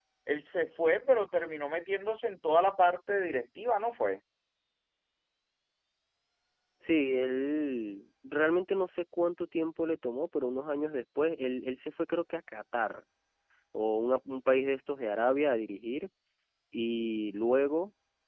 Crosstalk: none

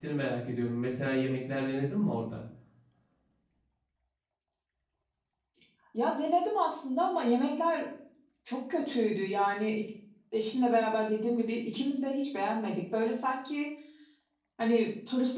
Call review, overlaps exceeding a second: none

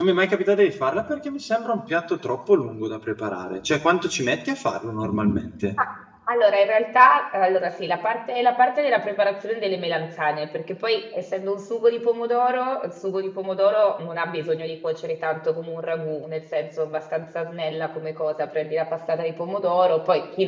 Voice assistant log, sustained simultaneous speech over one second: none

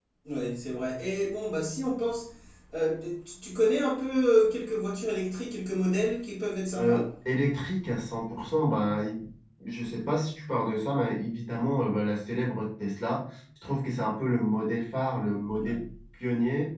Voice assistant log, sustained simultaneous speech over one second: none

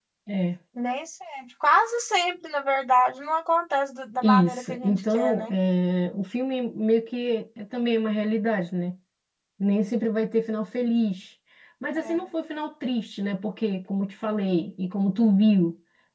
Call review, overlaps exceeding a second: present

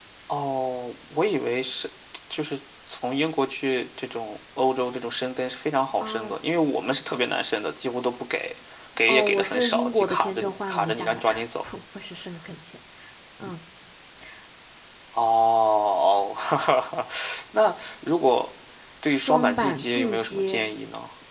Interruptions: present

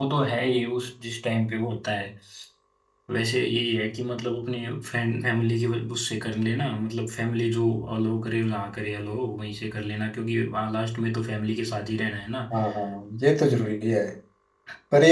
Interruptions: none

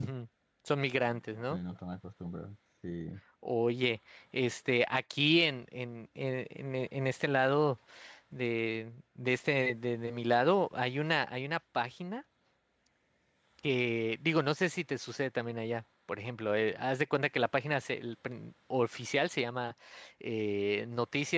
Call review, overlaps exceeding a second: none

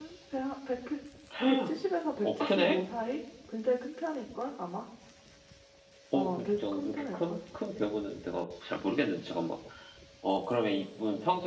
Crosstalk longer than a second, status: present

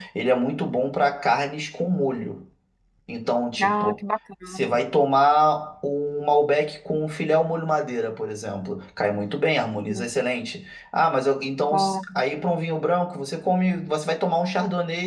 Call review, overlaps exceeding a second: none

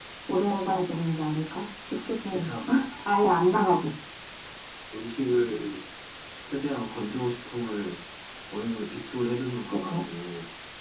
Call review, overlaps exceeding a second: none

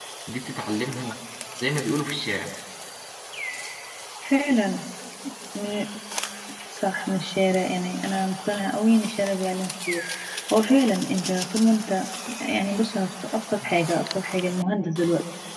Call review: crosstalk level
none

